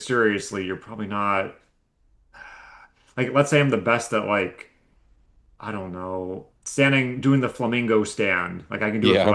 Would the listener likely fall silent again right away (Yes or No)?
Yes